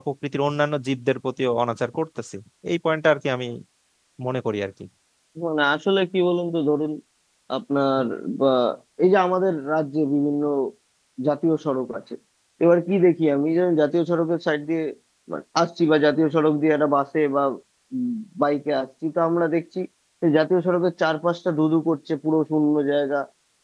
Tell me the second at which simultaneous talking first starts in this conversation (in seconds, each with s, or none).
none